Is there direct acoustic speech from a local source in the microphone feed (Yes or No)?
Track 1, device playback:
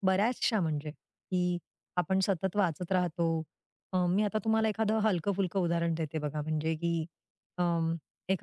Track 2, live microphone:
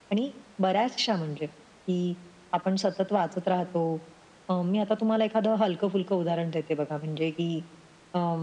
No